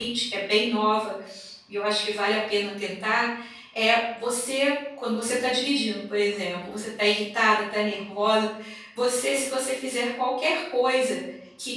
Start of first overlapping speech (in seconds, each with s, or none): none